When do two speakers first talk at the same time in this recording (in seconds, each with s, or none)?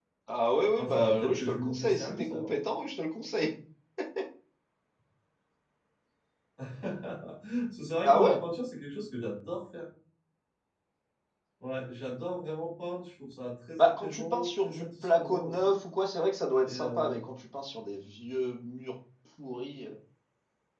0.8 s